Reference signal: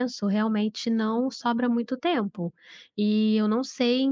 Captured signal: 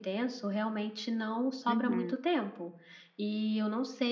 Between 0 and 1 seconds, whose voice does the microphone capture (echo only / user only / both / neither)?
echo only